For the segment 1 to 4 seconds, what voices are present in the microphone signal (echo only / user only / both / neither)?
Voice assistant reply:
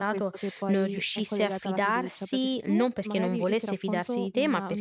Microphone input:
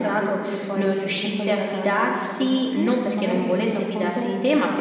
echo only